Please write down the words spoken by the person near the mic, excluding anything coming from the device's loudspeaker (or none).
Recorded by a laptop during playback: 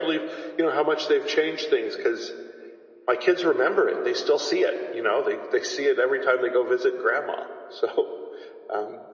none